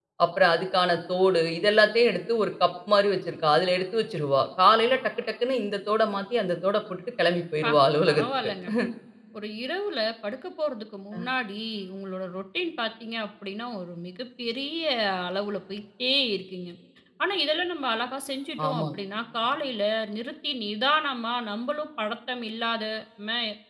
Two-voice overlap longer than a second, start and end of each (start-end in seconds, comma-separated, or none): none